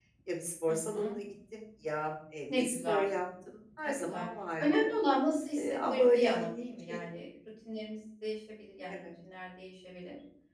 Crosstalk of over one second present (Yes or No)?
Yes